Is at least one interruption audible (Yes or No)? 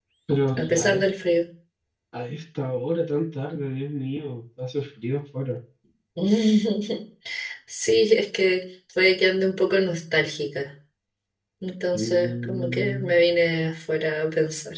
Yes